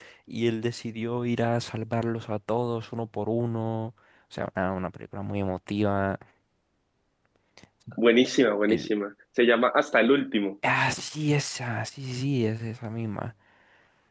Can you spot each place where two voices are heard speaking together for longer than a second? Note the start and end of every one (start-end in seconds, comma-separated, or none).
none